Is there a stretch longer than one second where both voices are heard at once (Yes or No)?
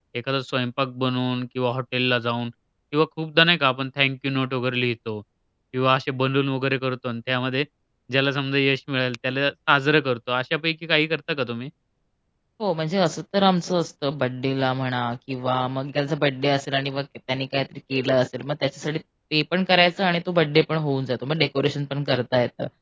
No